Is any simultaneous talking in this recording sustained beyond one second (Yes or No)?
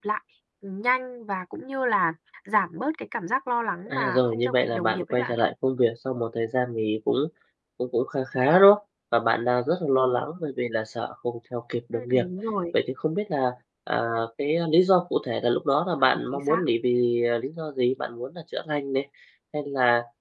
Yes